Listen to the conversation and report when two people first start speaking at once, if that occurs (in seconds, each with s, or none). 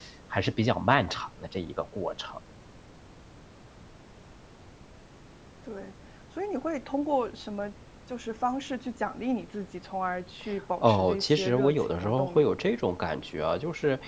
10.8 s